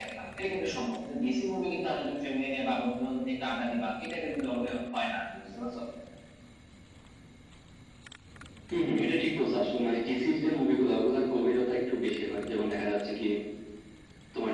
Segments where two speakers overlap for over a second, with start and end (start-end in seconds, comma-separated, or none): none